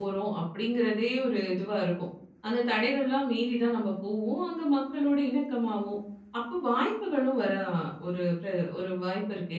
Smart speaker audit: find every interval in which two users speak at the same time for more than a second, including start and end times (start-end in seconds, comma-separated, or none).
none